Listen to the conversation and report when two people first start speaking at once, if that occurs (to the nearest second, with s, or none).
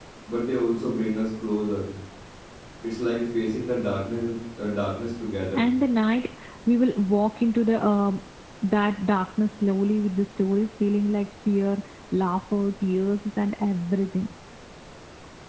none